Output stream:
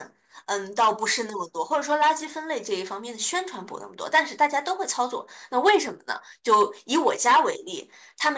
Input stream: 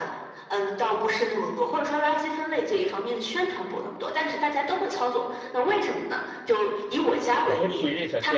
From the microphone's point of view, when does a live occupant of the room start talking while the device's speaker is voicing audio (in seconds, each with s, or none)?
7.4 s